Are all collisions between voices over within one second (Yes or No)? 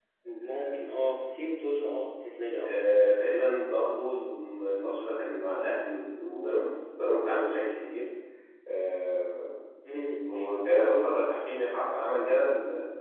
Yes